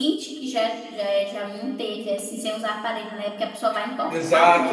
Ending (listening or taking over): taking over